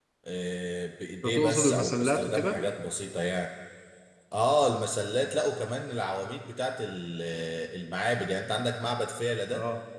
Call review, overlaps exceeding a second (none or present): present